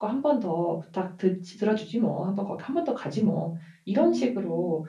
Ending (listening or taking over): listening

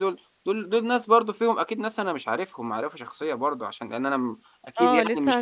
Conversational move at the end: taking over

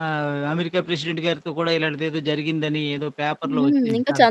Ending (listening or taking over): taking over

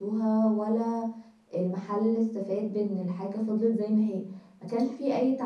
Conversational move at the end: listening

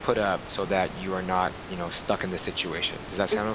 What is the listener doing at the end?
taking over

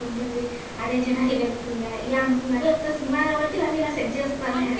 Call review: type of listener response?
taking over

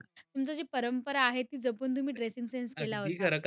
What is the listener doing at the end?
taking over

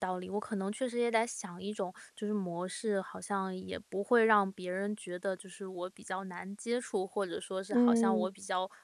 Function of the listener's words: listening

